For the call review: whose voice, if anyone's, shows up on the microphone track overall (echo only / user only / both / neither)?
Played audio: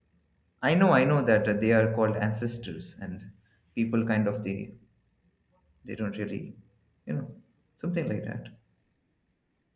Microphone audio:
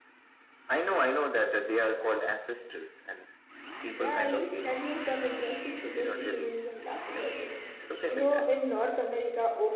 both